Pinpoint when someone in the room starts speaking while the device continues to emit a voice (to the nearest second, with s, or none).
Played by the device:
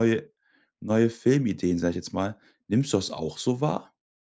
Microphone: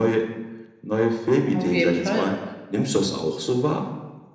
1 s